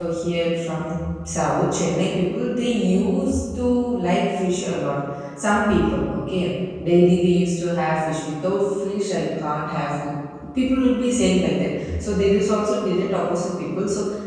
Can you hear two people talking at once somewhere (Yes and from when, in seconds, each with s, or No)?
No